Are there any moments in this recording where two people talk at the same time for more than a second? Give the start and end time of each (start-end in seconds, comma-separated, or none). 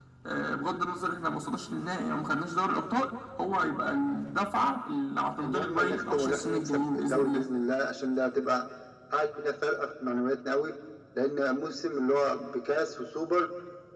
5.4-7.4